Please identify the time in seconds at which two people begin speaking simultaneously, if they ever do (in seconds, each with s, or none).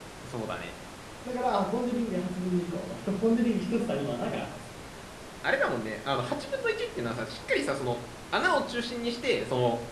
none